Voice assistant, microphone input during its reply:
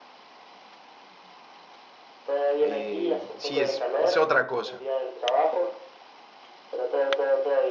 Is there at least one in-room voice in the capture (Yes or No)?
Yes